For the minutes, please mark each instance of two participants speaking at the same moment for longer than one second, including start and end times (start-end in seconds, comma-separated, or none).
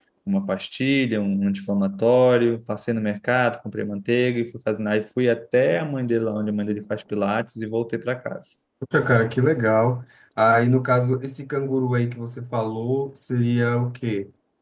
none